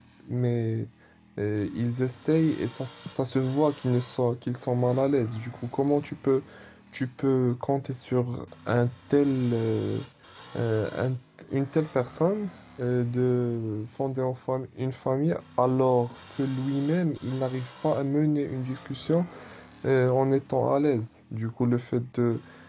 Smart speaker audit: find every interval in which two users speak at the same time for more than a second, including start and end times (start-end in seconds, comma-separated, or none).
none